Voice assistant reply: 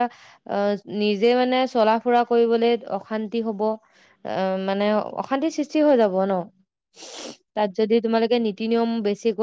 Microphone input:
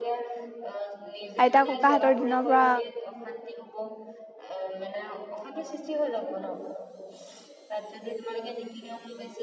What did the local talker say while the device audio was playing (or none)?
আইতা ক ককাহতৰ দিন পা